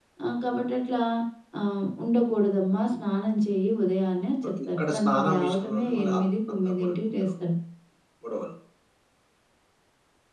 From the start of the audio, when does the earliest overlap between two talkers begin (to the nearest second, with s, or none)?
4 s